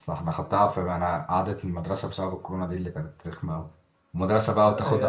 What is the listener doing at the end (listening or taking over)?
listening